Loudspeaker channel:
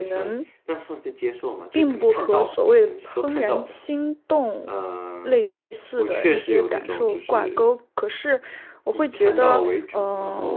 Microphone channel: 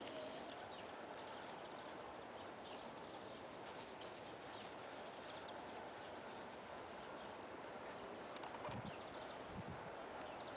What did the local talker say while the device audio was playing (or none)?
none